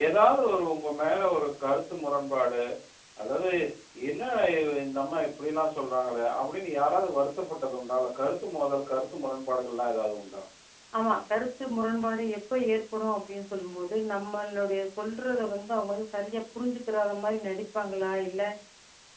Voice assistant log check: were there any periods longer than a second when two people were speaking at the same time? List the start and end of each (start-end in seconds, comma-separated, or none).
none